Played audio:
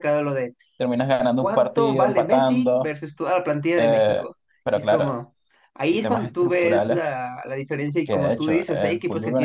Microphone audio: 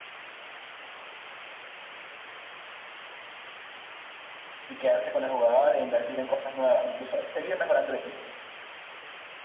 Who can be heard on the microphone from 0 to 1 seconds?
neither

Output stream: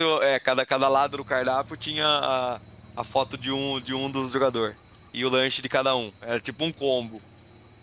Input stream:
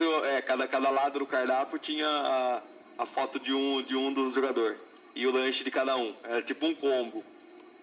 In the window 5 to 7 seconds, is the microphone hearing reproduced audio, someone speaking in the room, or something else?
echo only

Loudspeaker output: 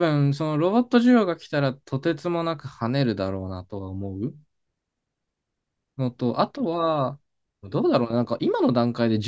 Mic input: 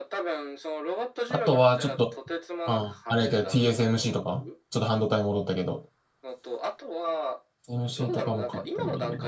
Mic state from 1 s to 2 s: both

